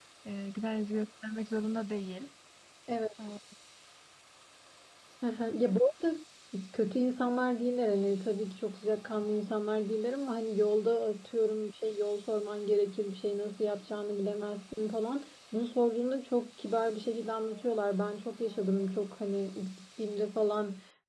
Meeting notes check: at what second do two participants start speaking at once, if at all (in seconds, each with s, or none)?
none